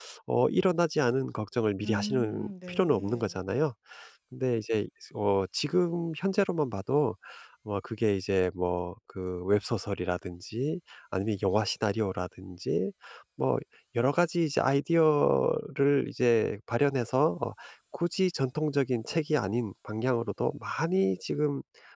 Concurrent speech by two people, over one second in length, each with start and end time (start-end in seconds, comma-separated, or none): 1.8-3.4